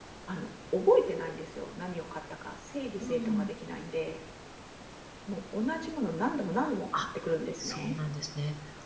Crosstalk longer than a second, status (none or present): none